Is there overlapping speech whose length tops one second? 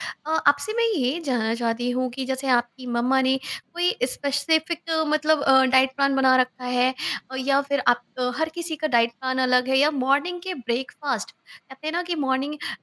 No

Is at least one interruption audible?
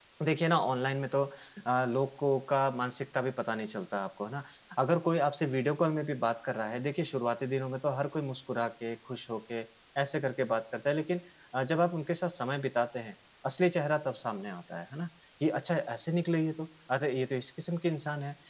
No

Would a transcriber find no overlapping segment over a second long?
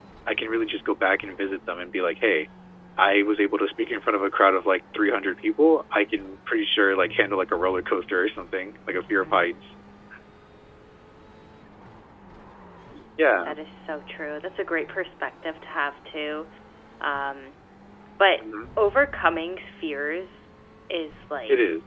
Yes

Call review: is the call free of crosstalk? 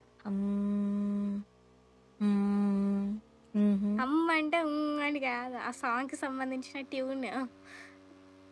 Yes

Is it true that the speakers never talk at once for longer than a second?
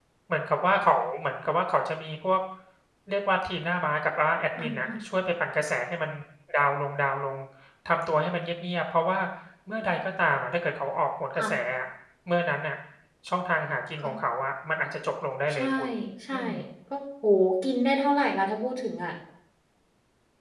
Yes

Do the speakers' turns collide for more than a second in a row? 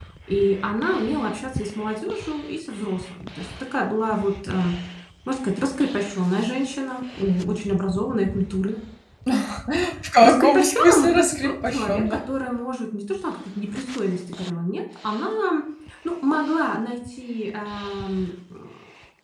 Yes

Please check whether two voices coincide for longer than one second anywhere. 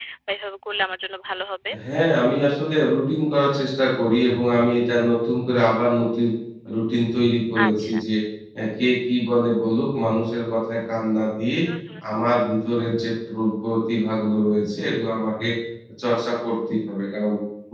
No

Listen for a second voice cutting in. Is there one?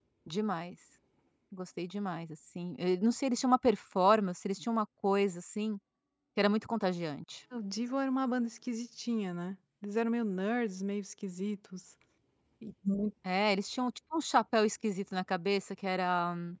No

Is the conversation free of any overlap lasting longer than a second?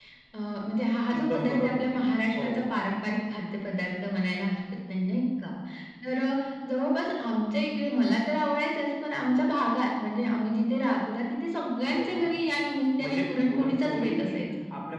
No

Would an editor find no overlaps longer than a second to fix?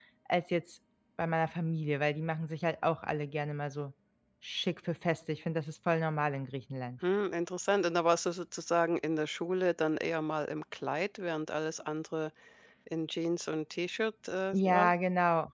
Yes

